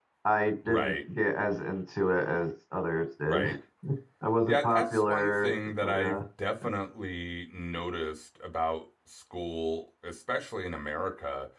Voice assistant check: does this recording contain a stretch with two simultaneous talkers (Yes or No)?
Yes